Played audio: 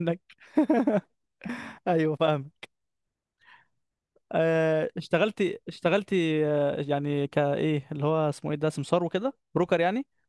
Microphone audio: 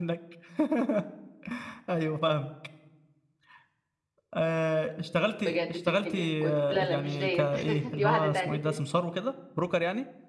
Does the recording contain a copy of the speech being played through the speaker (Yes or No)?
Yes